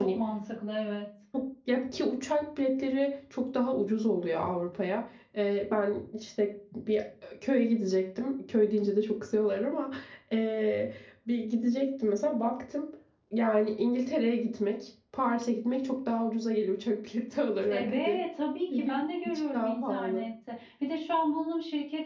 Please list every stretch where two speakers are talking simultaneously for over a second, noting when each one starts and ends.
18.8-20.3

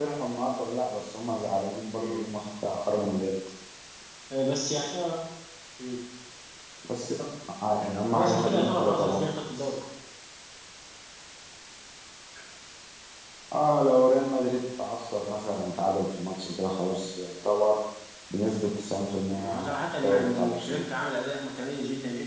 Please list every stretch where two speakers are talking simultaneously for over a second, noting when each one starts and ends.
8.1-9.7, 19.4-20.9

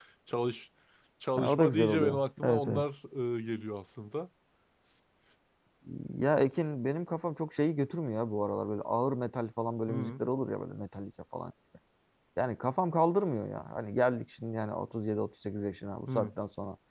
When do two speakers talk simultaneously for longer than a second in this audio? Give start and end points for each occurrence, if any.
1.4-2.8

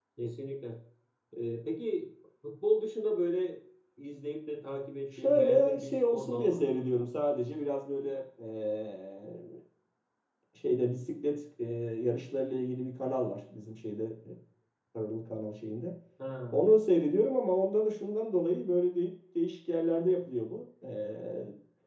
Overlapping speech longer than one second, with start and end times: 5.1-6.8

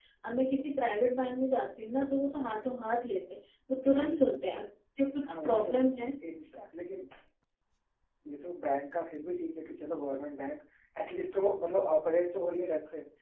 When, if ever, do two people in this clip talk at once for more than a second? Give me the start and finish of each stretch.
none

